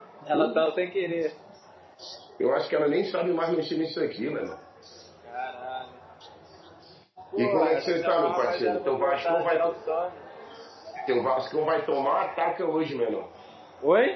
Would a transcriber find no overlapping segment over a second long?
No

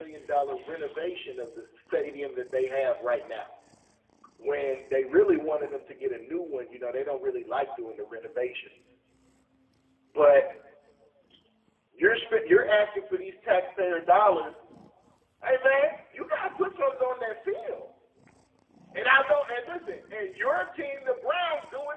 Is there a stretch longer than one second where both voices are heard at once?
No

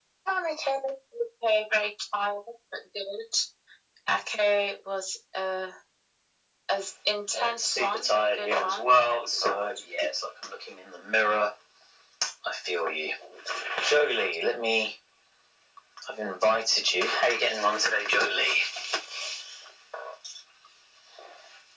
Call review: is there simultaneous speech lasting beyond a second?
Yes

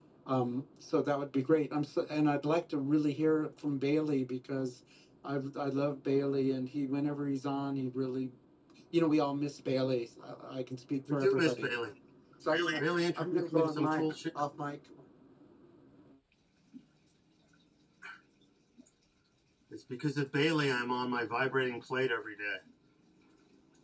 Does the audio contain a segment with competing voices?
Yes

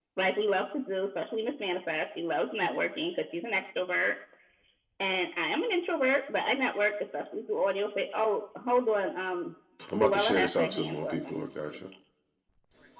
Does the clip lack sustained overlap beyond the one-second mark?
No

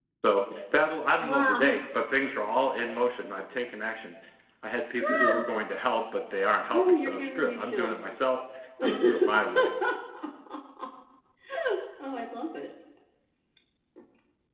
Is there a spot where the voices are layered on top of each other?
Yes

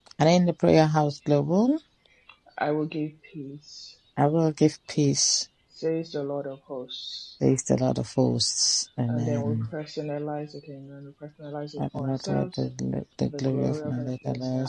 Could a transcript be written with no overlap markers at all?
No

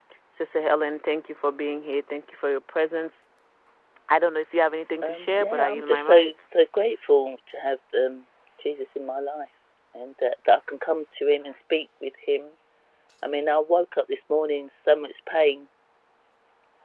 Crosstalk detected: Yes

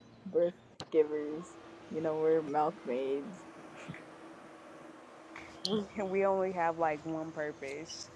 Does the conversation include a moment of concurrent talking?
No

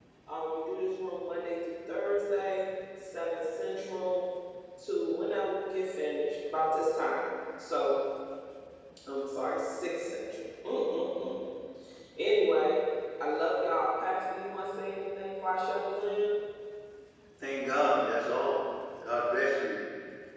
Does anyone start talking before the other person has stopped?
No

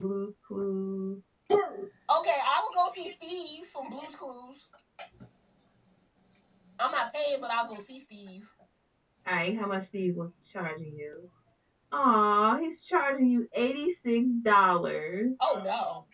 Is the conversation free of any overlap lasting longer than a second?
Yes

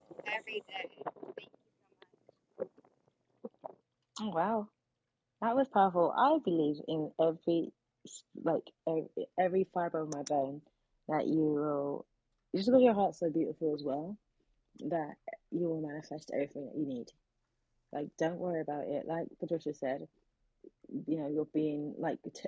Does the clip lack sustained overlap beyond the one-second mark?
Yes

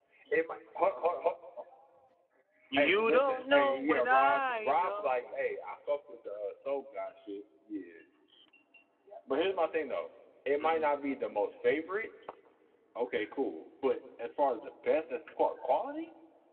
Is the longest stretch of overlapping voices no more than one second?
No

